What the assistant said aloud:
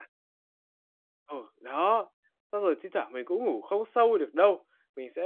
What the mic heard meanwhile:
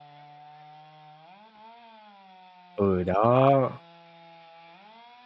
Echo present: No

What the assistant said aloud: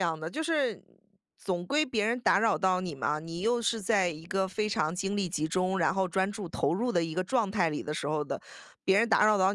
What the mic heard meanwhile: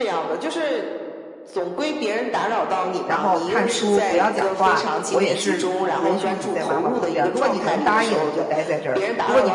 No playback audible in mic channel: No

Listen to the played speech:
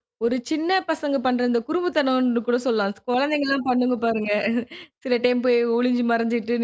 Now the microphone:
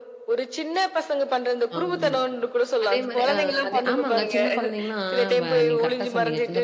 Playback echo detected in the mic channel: Yes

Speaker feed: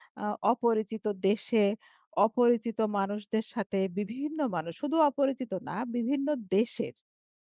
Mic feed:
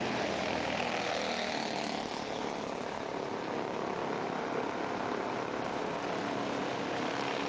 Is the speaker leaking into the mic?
No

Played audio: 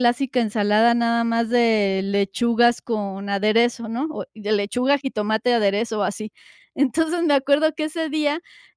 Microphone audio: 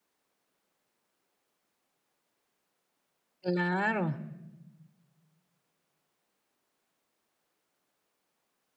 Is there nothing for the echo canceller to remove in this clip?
Yes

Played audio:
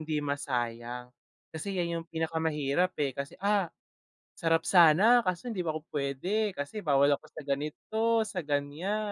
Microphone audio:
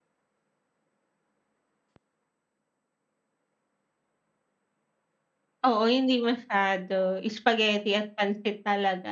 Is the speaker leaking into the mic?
No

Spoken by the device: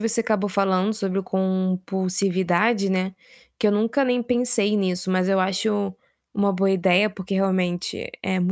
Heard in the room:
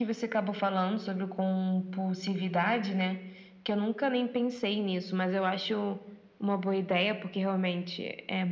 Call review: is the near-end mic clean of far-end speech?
No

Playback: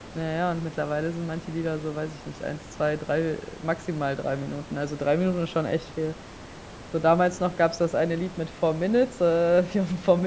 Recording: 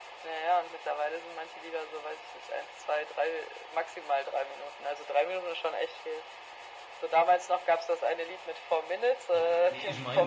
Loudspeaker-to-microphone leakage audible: Yes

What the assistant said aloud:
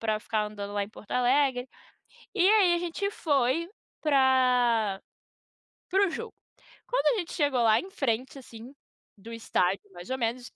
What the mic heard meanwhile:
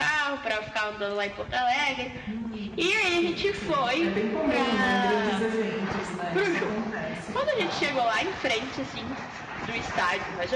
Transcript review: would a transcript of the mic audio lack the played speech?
No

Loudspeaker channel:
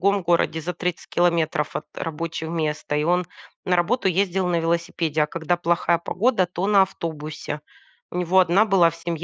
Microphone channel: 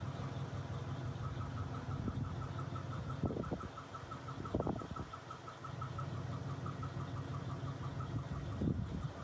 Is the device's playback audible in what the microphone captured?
No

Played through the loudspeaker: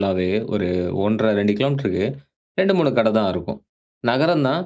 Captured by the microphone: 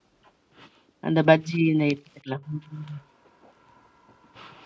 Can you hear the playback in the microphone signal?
No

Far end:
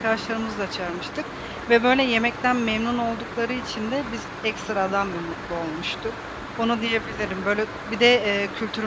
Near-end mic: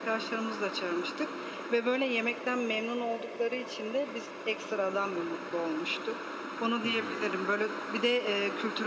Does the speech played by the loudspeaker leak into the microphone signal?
Yes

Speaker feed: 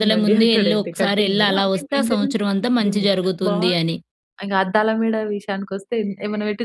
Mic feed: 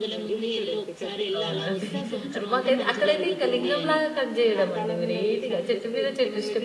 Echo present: Yes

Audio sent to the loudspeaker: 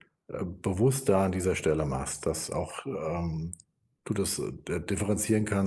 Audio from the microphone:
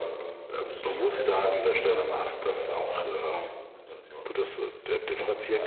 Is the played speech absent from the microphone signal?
No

